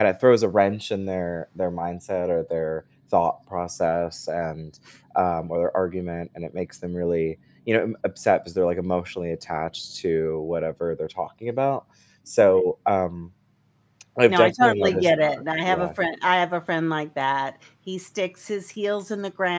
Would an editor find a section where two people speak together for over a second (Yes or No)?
Yes